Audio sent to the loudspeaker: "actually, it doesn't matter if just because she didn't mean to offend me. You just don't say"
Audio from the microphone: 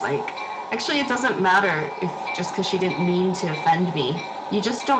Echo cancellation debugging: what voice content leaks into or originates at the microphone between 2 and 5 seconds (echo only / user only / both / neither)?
echo only